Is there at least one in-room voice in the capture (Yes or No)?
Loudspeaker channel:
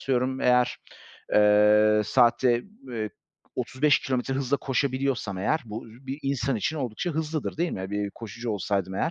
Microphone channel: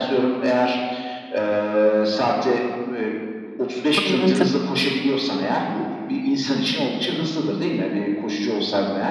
Yes